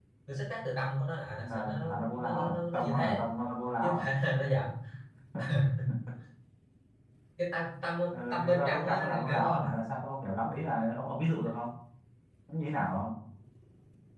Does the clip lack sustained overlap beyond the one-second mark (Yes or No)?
No